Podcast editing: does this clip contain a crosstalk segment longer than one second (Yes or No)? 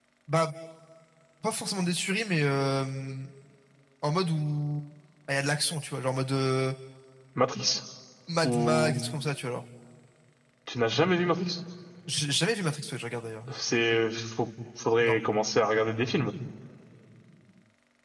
No